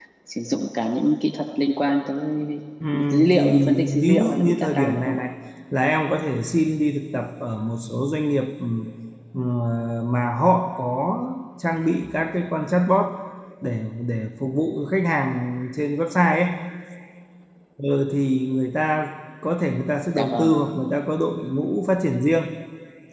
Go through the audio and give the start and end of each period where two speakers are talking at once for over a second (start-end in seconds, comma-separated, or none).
2.9-5.2